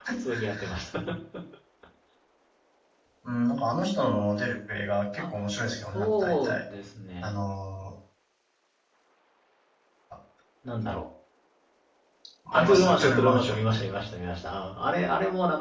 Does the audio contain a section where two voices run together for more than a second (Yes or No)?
Yes